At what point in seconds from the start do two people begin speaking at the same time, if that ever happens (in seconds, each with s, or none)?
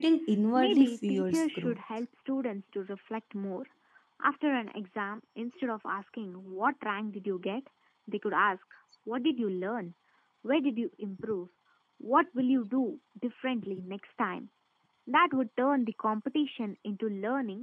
0.5 s